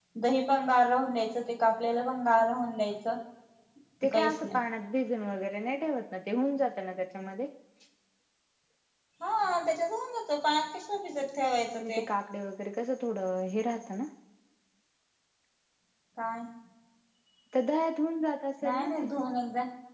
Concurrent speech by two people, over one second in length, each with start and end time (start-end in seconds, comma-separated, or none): none